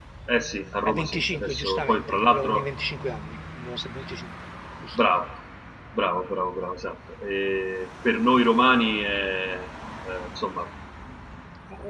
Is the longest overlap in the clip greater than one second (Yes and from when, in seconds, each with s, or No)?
Yes, from 0.8 s